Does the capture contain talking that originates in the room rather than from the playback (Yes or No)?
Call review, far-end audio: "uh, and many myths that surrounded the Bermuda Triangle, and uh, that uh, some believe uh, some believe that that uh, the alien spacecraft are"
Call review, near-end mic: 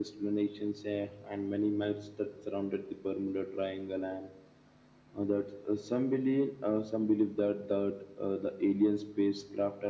No